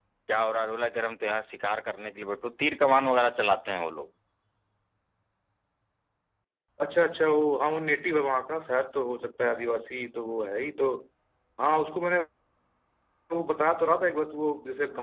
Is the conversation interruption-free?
Yes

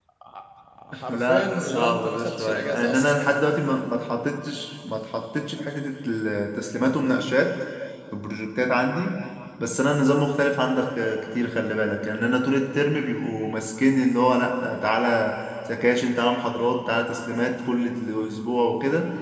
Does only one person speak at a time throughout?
No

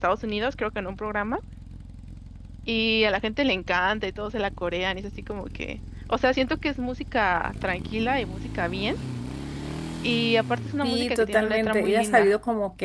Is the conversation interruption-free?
No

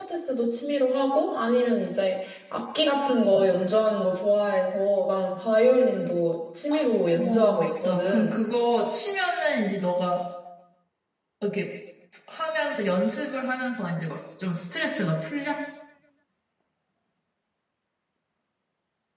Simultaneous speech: Yes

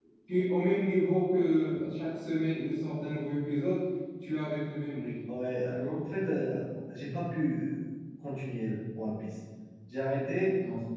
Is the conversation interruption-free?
Yes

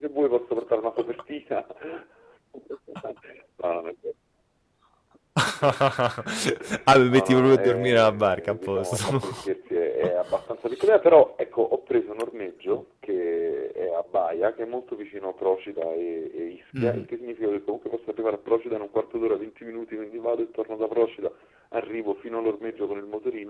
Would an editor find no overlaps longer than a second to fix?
No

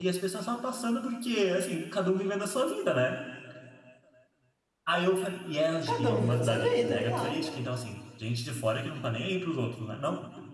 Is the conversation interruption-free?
No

